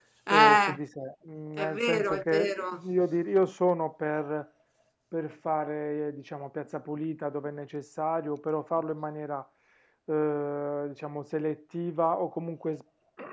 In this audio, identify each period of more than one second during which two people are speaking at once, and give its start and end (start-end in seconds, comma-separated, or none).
1.6-2.8